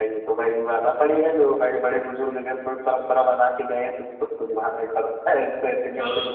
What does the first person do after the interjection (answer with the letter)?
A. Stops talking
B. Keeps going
A